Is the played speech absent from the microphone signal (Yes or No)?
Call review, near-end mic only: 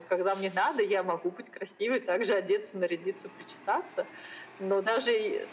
No